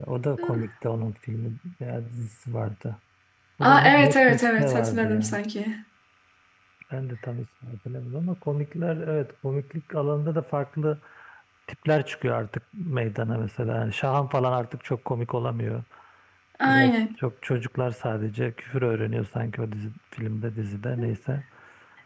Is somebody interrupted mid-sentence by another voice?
Yes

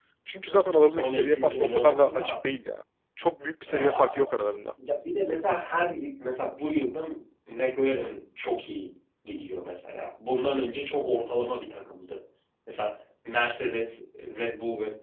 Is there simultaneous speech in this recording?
Yes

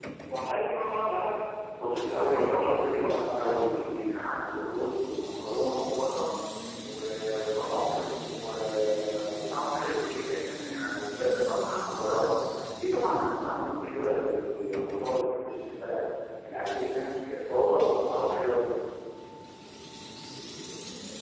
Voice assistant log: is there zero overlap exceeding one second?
No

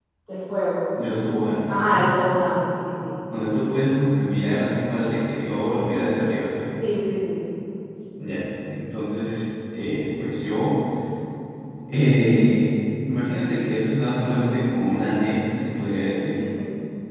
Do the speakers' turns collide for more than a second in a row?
No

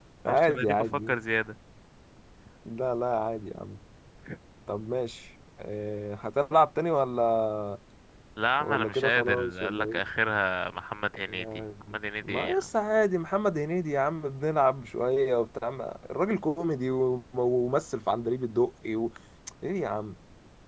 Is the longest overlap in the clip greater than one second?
Yes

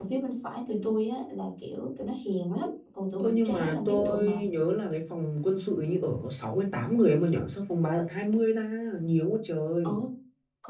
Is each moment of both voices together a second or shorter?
No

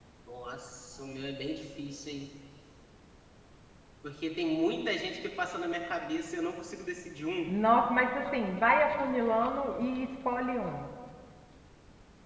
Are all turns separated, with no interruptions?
Yes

